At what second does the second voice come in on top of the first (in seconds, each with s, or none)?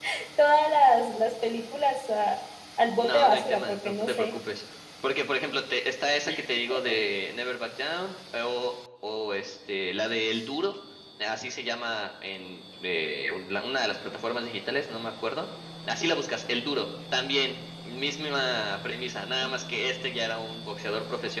3.0 s